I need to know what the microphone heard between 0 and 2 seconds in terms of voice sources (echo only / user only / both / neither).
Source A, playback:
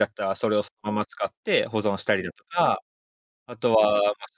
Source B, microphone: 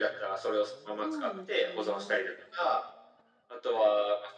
both